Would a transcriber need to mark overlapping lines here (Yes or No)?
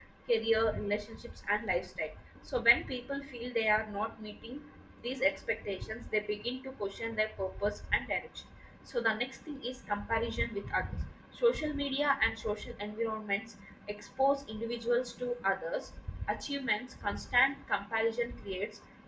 No